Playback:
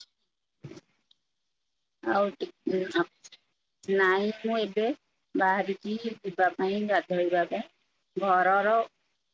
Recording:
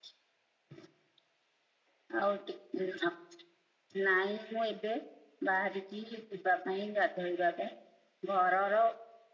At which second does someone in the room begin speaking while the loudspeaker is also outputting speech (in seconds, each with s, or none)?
none